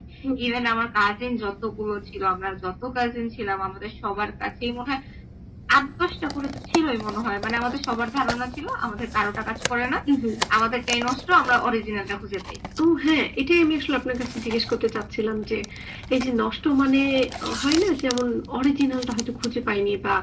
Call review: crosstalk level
none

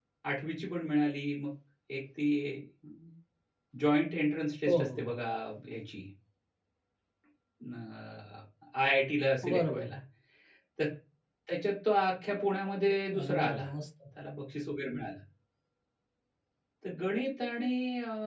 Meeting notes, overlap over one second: none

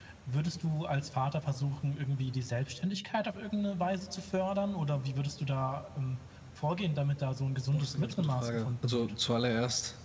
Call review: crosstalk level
present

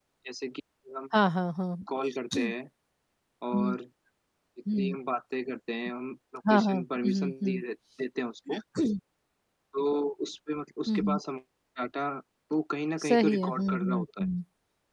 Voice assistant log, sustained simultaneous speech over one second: present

